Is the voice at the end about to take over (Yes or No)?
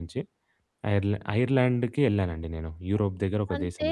Yes